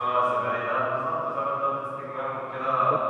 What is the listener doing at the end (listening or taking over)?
taking over